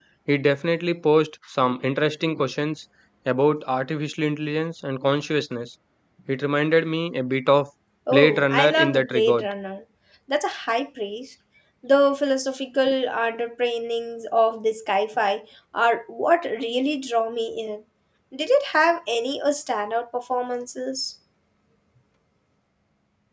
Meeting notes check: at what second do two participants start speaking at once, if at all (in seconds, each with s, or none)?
8.1 s